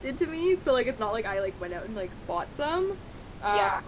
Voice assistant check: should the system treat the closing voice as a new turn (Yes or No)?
No